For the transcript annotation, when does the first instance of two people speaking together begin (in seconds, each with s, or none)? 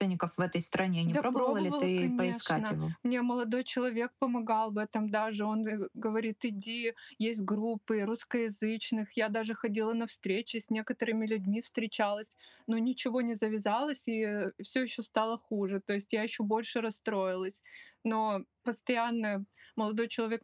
1.1 s